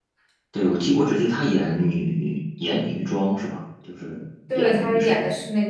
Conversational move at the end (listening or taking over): taking over